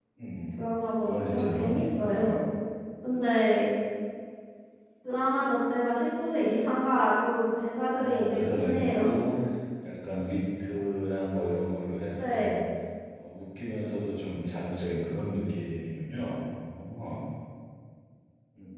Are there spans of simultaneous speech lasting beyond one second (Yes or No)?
Yes